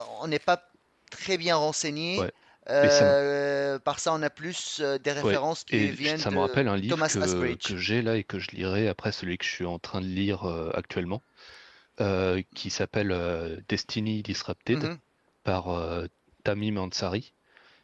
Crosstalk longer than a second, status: present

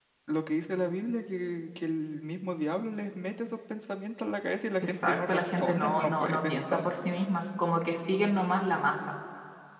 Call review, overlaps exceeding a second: present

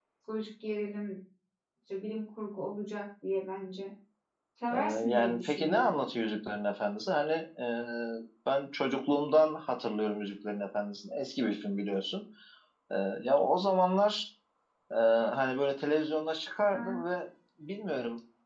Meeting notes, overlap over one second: present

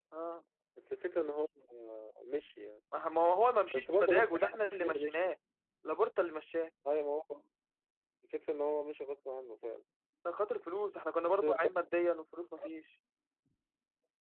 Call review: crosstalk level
present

